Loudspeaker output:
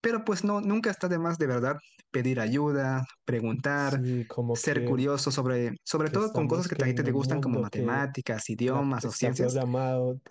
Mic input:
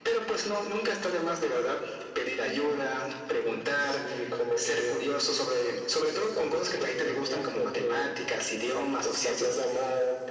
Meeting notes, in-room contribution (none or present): none